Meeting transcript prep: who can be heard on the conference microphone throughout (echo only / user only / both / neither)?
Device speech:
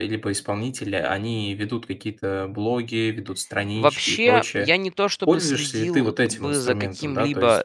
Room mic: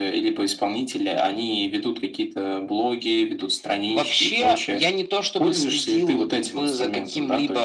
echo only